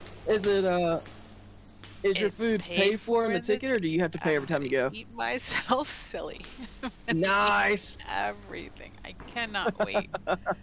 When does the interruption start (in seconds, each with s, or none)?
2.1 s